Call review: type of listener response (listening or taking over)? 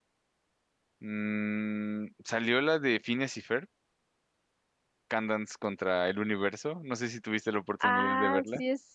taking over